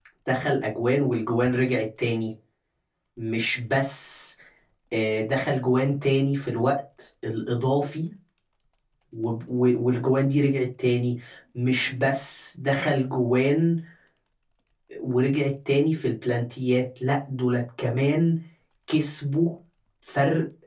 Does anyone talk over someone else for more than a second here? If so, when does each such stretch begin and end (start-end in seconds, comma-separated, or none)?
none